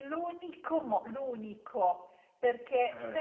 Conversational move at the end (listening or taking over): listening